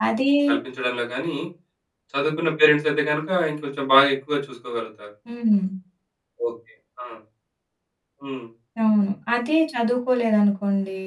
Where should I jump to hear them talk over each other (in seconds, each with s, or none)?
none